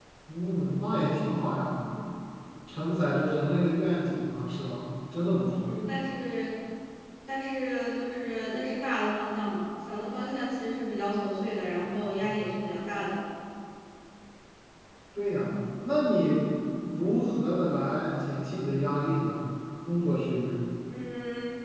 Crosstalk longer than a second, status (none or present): none